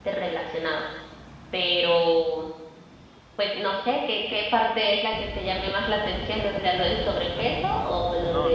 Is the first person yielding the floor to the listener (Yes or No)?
Yes